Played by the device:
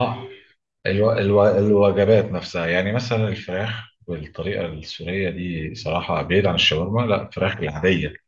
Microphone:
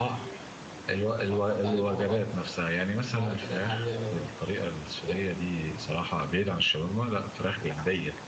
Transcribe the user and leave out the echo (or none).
وهتحط عليه بهارات البهارات اللي هي العادية اللي هو ايه